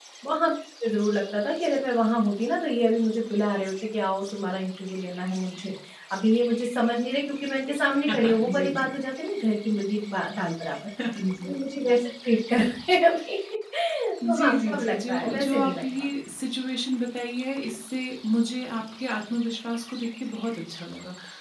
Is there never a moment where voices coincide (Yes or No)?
No